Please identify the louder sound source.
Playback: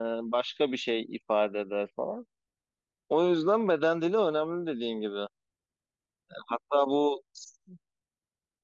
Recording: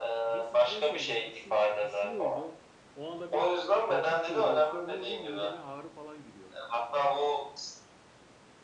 echo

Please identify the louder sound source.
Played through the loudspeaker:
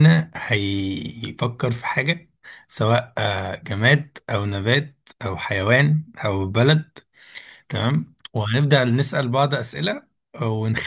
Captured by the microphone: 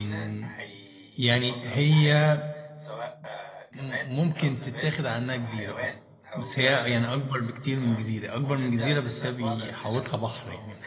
user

